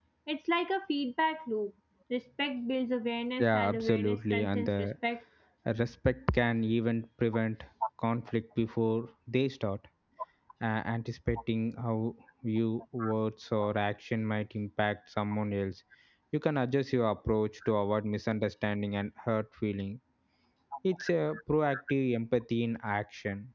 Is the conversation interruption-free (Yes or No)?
No